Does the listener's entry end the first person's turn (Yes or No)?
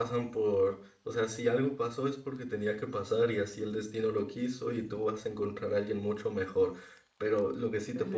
Yes